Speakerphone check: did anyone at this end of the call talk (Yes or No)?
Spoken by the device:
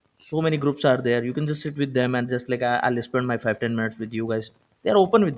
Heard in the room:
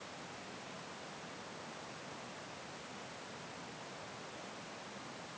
No